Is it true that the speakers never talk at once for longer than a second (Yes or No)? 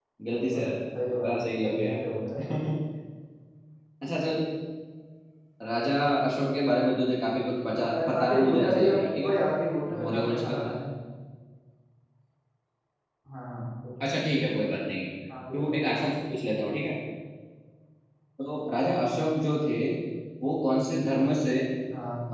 No